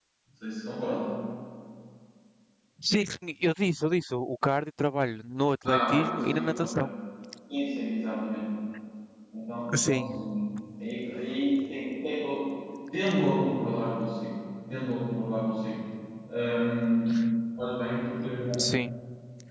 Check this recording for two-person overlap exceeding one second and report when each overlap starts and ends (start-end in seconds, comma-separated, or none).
5.6-6.9